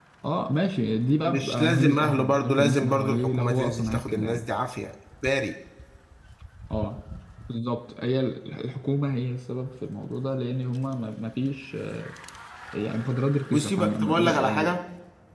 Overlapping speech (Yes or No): Yes